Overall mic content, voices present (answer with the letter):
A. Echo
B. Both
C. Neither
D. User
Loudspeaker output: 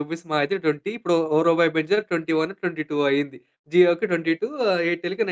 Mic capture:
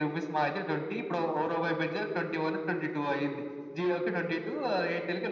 A